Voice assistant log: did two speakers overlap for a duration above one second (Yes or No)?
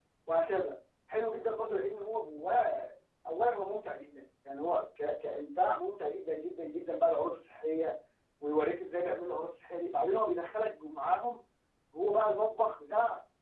No